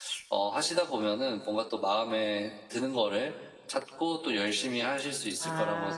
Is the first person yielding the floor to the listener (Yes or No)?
Yes